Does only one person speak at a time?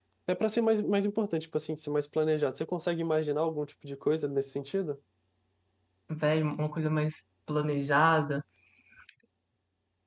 Yes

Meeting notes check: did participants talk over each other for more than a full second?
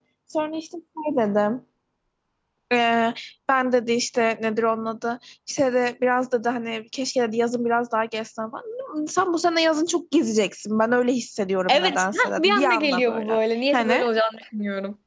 Yes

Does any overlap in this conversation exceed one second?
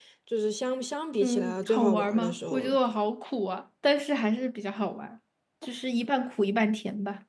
Yes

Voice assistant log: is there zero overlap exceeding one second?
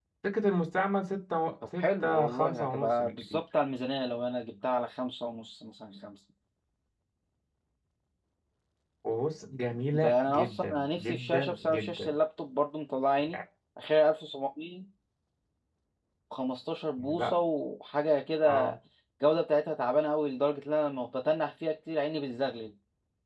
No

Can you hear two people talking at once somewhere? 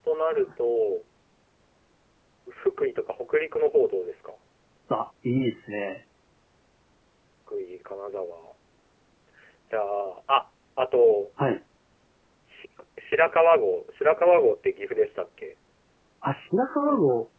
No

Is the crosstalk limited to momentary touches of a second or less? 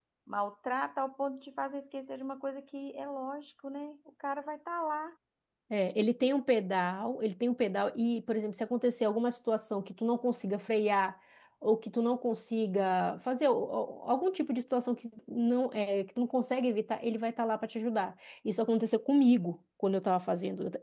Yes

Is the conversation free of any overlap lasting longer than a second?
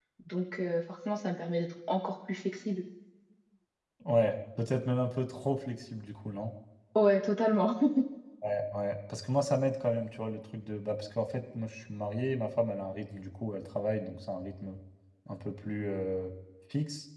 Yes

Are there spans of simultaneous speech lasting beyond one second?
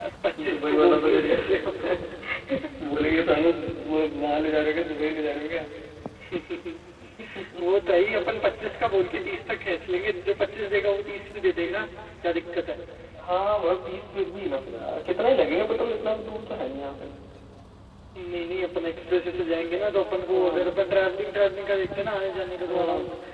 Yes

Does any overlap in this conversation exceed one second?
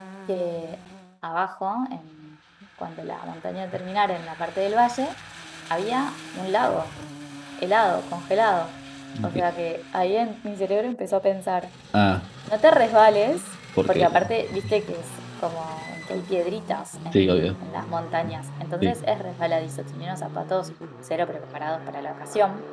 No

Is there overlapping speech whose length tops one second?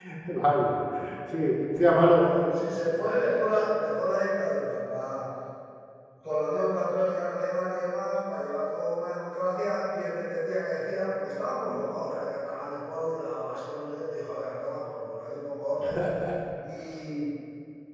No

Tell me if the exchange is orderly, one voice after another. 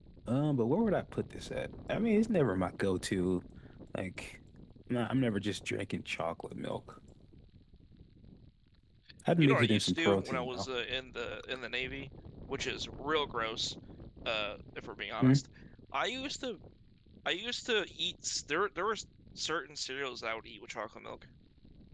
No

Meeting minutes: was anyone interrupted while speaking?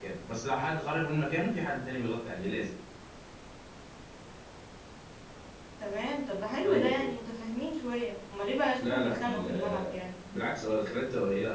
Yes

